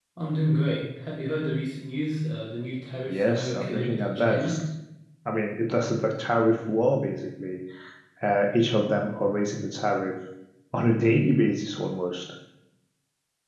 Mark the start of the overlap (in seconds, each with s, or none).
3.0 s